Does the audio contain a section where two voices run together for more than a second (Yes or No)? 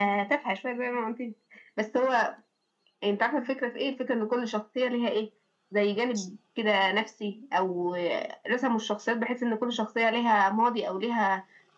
No